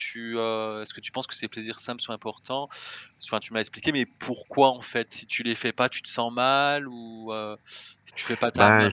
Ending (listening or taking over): taking over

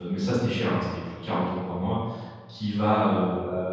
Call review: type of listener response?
listening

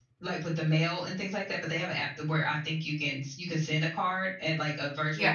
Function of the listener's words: listening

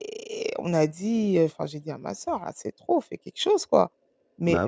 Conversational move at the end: listening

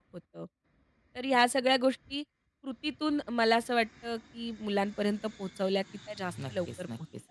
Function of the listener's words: taking over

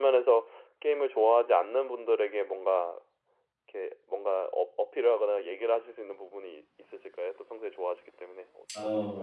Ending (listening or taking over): taking over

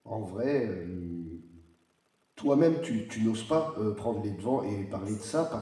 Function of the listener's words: listening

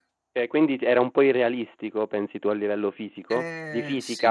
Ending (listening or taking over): taking over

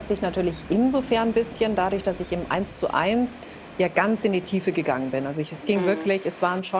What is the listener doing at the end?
listening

